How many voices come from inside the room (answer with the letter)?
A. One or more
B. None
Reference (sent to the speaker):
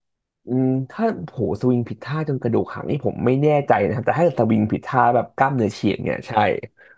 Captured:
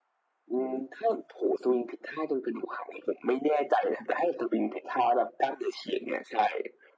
B